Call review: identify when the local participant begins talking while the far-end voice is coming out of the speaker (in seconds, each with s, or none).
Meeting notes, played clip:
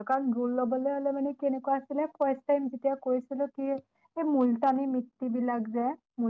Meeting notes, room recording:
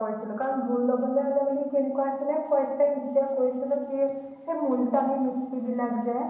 none